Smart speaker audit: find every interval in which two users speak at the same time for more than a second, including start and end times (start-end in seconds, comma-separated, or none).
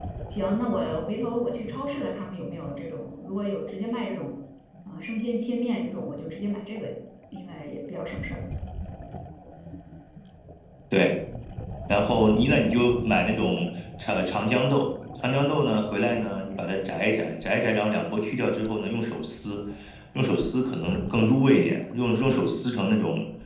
none